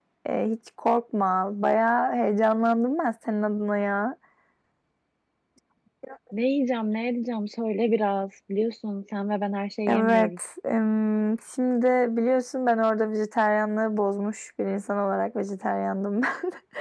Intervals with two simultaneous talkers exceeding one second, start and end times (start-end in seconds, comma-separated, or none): none